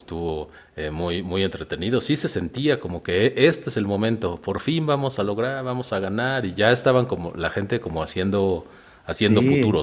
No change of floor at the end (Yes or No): No